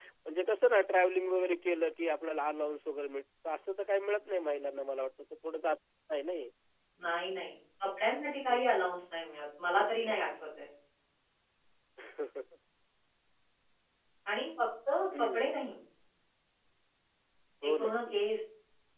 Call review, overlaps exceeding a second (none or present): none